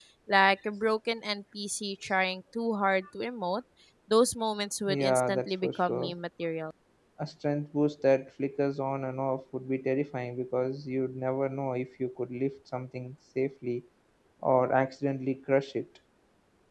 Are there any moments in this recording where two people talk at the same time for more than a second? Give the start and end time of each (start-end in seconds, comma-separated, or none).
4.9-6.1